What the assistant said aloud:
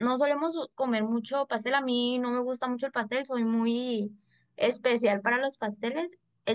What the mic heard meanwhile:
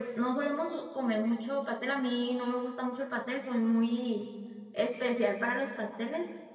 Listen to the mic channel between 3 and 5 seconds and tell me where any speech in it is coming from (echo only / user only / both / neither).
echo only